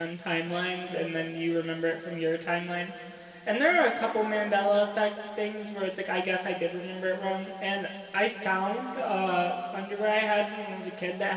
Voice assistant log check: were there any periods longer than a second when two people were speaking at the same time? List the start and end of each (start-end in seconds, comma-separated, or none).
none